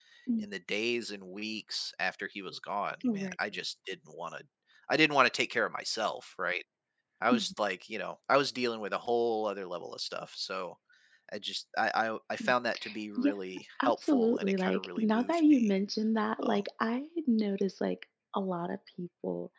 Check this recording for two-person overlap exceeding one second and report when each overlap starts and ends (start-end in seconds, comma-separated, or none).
13.8-15.7